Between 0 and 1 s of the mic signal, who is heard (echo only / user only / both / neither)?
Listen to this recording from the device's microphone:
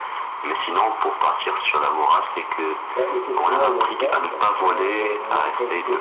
echo only